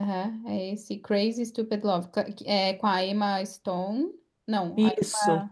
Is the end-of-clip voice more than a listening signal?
No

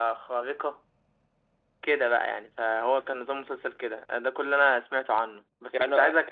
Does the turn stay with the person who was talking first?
Yes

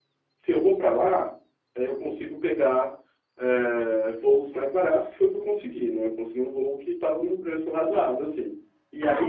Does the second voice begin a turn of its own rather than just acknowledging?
Yes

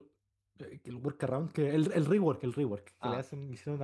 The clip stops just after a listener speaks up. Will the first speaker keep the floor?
Yes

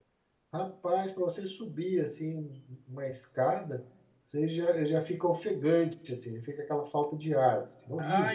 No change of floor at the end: No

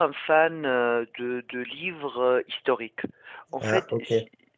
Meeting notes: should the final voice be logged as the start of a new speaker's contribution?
No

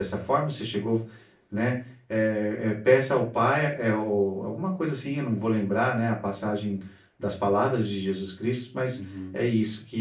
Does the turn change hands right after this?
No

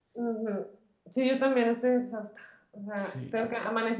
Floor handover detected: No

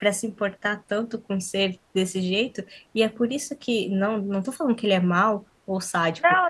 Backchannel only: No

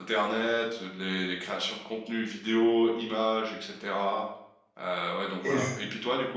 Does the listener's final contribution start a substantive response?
No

